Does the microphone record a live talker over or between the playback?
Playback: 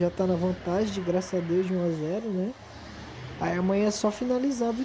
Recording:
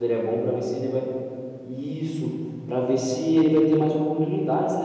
Yes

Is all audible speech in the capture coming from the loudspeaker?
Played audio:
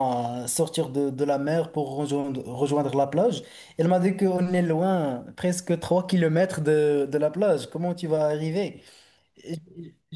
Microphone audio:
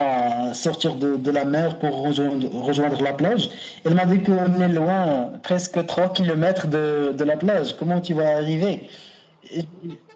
Yes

